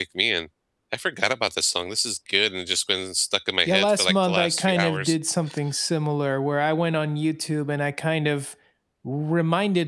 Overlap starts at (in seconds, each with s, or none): 3.7 s